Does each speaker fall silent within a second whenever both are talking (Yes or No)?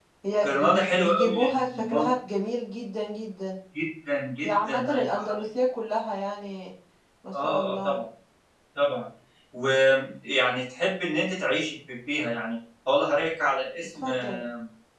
No